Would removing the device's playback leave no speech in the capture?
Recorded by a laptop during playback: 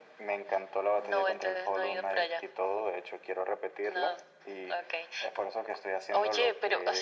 Yes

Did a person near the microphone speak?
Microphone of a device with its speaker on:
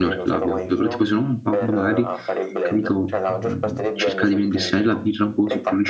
Yes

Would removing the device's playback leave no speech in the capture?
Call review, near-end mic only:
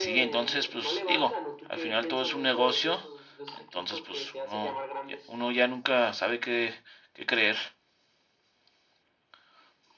No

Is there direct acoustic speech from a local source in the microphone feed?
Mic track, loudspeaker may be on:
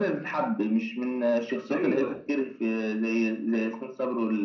Yes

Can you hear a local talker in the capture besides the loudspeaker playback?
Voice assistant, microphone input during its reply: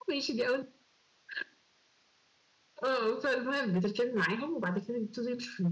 No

